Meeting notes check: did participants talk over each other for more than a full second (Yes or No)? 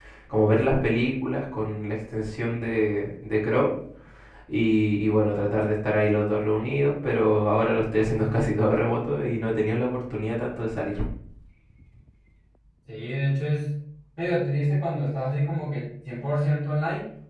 No